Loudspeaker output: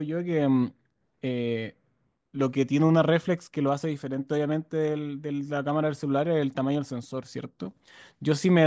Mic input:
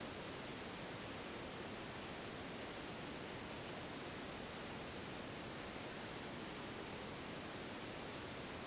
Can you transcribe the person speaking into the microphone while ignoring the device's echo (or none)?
none